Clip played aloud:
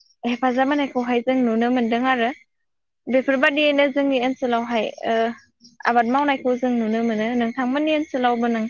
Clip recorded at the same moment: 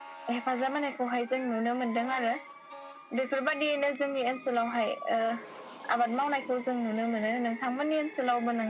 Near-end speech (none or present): none